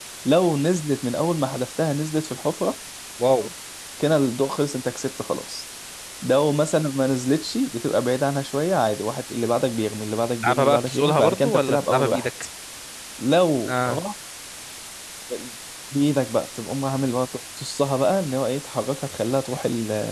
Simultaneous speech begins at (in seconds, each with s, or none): 10.4 s